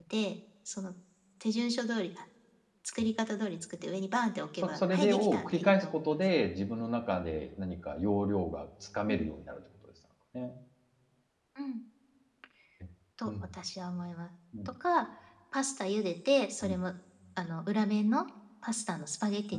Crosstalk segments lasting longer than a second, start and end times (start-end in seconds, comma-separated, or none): 4.6-6.1